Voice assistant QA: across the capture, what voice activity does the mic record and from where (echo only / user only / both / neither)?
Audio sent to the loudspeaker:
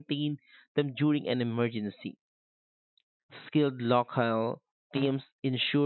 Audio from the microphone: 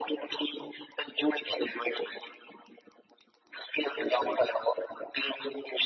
echo only